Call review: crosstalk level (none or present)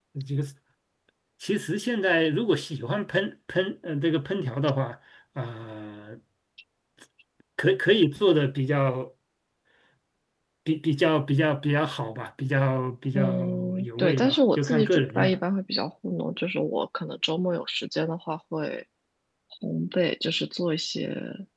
present